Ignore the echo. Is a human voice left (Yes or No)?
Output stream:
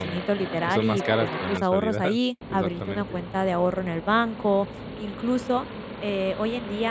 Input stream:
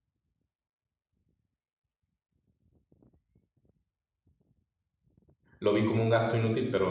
Yes